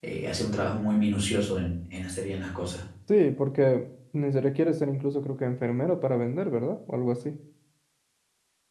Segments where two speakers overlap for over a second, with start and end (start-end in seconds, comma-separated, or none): none